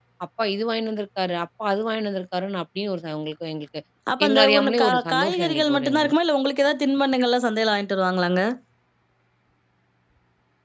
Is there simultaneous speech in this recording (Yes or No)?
Yes